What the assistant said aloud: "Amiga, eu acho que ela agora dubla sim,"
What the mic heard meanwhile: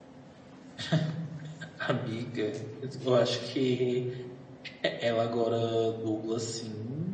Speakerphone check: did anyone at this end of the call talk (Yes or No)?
No